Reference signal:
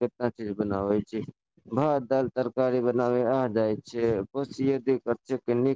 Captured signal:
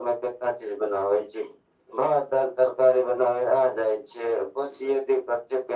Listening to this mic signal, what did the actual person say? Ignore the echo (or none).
none